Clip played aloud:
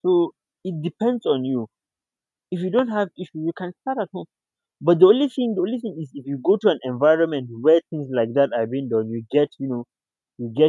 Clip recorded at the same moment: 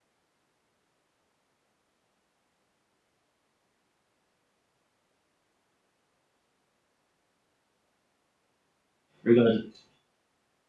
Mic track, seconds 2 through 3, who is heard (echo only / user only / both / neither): neither